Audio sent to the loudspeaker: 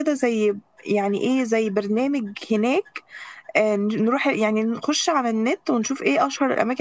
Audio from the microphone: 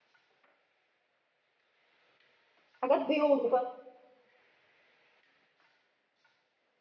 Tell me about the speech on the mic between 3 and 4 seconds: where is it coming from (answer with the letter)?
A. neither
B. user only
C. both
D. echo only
B